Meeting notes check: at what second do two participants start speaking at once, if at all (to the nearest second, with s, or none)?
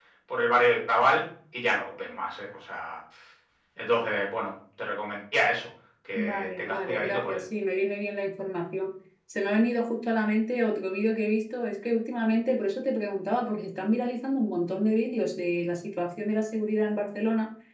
6 s